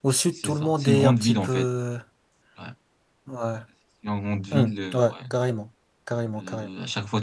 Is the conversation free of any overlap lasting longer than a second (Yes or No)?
No